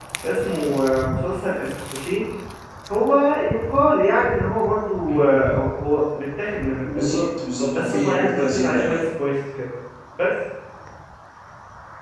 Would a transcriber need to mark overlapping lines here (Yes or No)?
Yes